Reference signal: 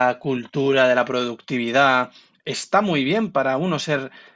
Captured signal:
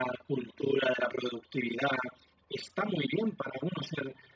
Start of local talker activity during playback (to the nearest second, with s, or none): none